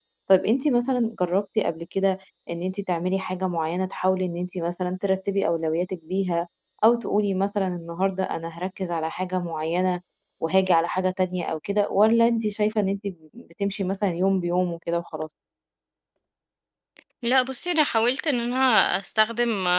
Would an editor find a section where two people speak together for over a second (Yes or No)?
No